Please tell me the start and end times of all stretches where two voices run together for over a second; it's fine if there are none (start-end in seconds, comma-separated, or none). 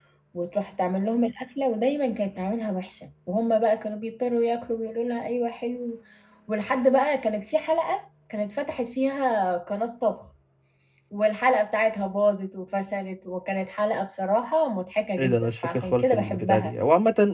15.2-16.7